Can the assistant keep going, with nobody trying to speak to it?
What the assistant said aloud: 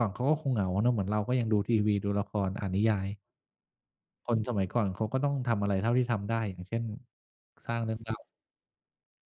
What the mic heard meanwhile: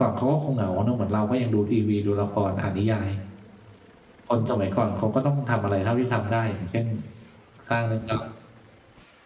Yes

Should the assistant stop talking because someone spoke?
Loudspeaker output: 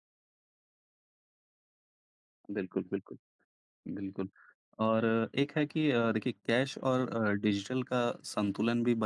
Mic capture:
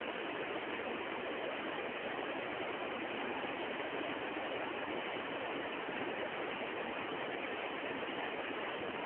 No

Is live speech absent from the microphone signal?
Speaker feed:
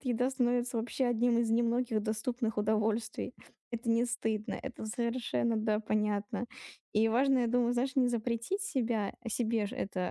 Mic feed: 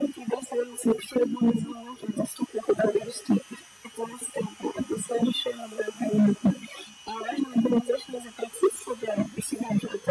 Yes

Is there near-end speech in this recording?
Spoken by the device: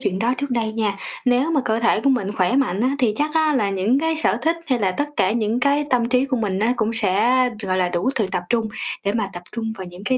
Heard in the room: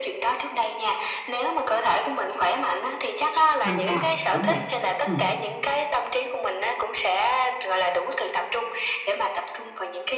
Yes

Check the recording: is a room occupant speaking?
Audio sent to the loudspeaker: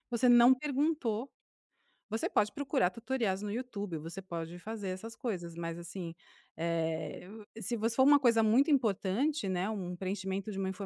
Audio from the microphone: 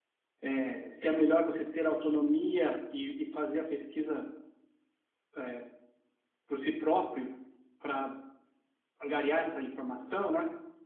Yes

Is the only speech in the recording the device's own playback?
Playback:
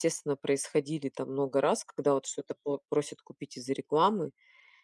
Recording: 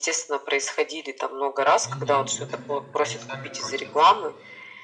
No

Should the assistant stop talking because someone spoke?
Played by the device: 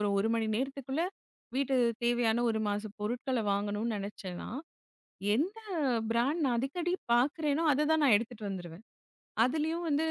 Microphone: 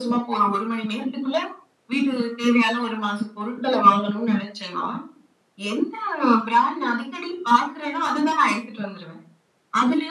No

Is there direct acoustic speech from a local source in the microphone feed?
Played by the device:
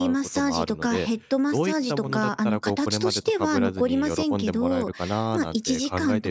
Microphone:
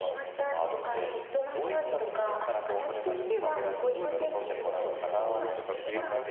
Yes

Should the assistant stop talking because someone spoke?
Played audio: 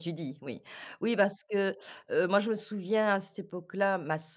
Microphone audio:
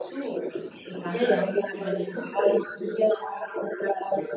Yes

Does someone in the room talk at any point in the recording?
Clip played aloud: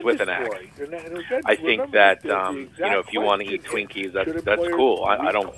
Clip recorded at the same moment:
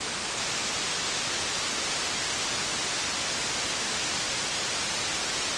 No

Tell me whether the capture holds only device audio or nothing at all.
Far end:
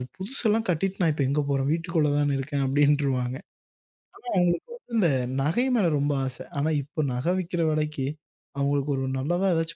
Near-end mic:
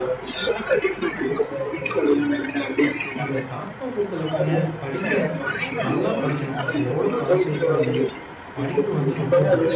No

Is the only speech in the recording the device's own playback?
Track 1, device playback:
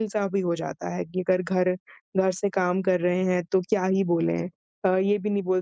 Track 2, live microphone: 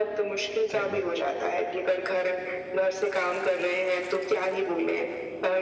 No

